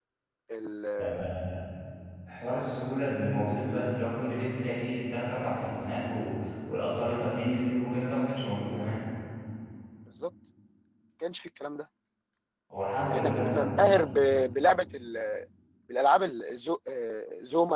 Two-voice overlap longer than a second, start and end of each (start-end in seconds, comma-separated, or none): 13.1-14.3